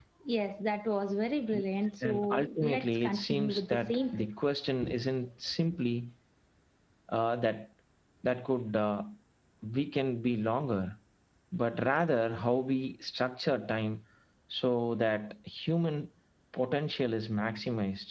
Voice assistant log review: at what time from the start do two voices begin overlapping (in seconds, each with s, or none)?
2.0 s